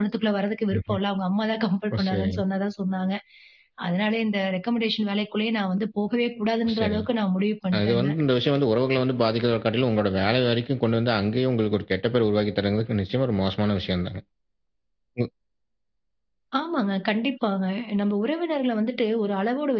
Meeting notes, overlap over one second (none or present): none